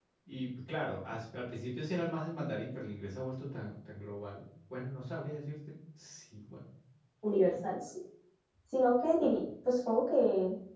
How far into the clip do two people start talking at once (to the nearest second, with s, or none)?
none